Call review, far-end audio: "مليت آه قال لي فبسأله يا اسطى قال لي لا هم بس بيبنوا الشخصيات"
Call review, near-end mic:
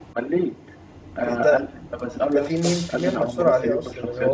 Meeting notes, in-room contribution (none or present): present